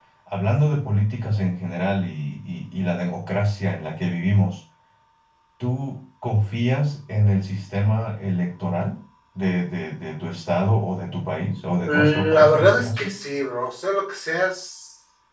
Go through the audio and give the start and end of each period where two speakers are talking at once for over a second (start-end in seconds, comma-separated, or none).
11.8-13.1